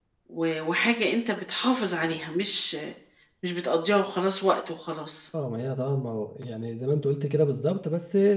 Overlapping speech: No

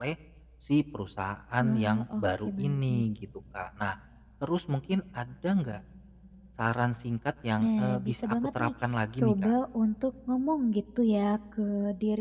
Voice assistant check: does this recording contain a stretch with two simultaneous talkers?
Yes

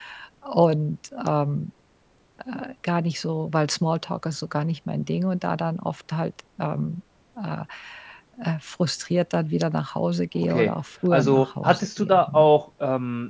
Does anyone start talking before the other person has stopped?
Yes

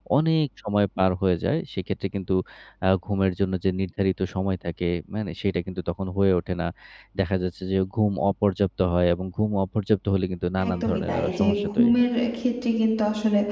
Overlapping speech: Yes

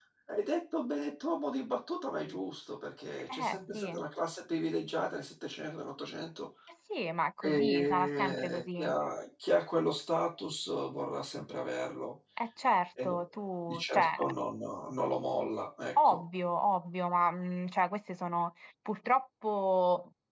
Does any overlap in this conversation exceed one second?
Yes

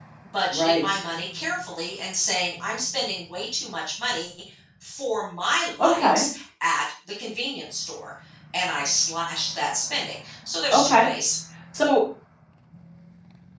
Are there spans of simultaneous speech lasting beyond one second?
No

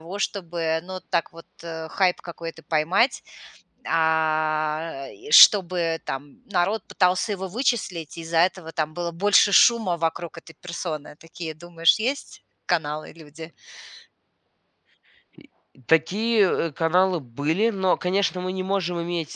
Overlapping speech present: No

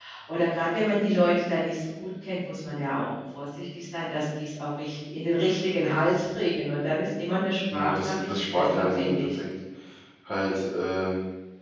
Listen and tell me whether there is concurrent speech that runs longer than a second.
Yes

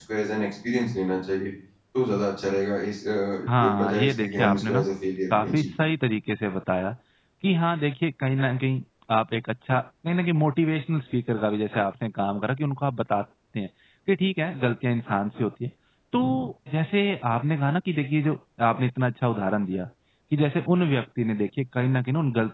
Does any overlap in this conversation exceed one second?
Yes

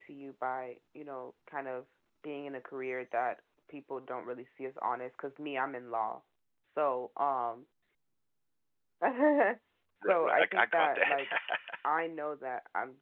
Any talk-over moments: Yes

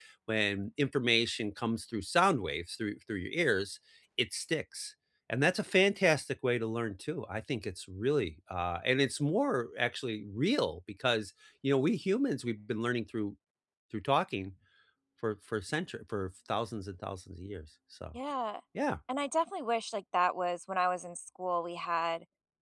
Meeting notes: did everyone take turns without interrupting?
Yes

